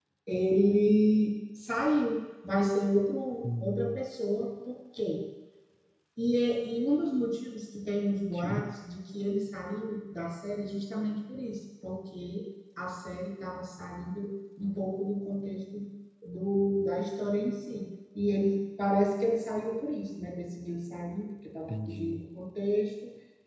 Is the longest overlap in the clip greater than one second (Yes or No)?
No